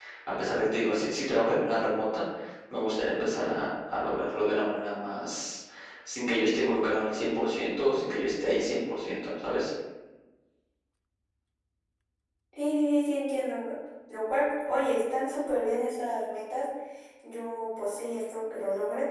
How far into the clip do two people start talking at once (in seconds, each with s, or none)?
none